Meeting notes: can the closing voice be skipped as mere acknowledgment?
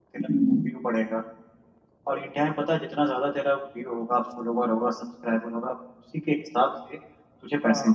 Yes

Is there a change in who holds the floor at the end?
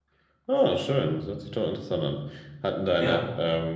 No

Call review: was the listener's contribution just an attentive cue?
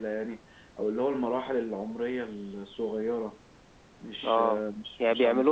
No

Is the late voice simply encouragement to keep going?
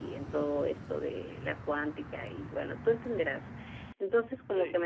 Yes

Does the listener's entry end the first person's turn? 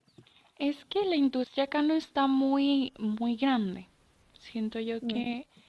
No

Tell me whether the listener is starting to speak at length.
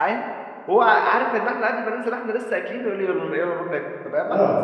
No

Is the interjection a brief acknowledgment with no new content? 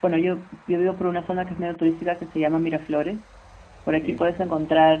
Yes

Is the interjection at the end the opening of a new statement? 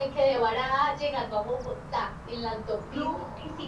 No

